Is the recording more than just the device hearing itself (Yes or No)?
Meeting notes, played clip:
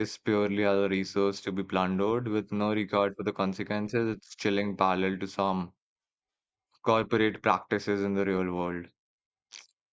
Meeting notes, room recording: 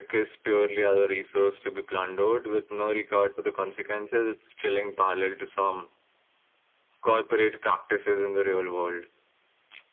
No